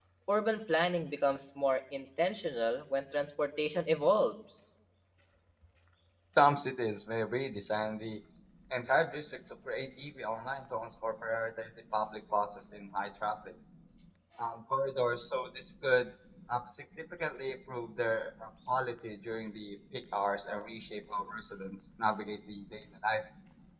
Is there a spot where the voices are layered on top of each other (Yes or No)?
No